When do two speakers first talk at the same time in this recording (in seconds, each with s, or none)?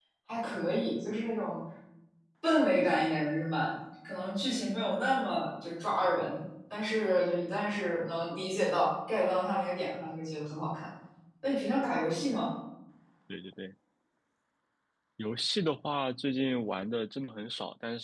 none